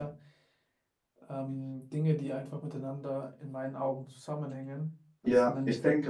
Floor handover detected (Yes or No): Yes